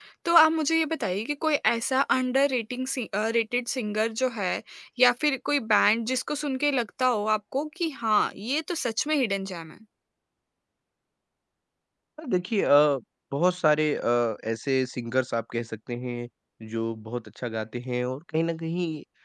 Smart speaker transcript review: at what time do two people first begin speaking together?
none

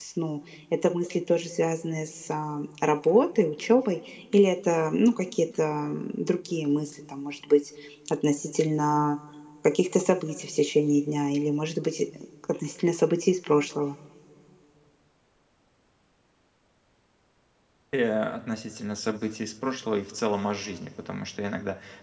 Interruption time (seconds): none

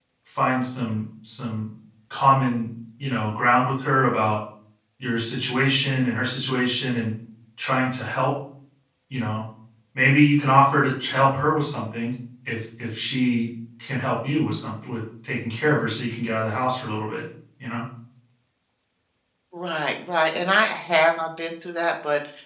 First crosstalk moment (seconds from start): none

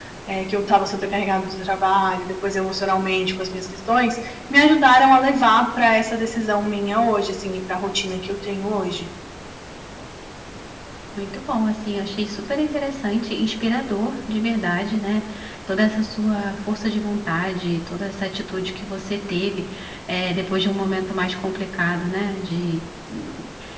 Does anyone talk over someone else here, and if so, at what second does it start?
none

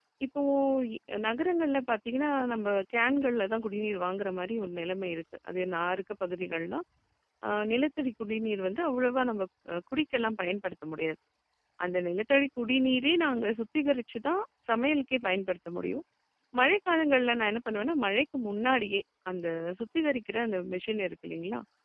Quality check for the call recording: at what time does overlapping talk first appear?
none

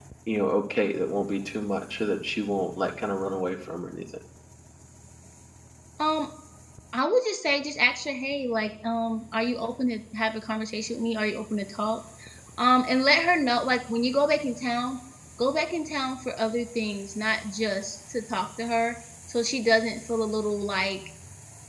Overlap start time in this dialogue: none

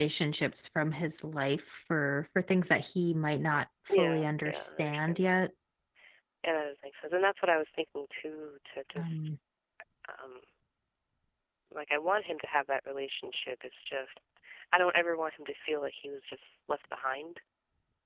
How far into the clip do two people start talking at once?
3.9 s

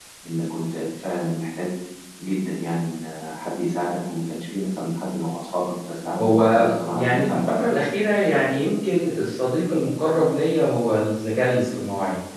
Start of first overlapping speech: 6.2 s

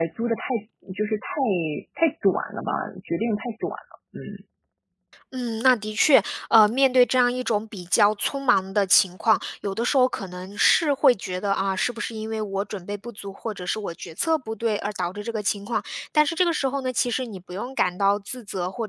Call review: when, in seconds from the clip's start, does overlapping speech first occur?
none

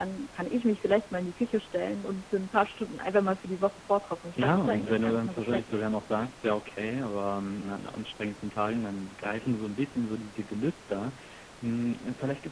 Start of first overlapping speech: 4.4 s

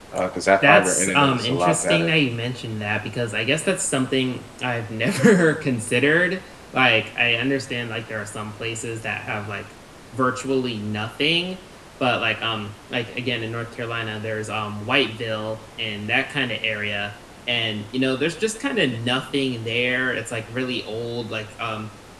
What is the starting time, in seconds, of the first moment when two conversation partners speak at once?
0.7 s

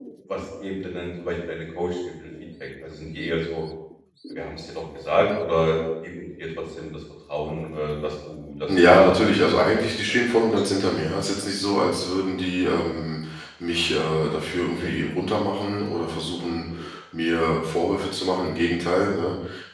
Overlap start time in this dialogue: 8.7 s

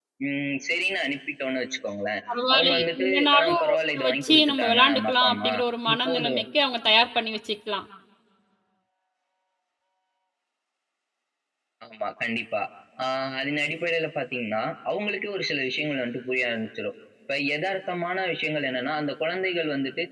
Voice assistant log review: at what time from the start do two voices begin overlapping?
2.5 s

